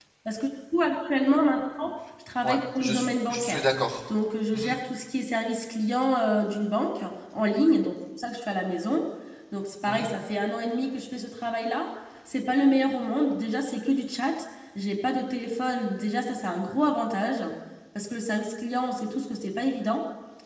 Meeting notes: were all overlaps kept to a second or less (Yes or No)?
No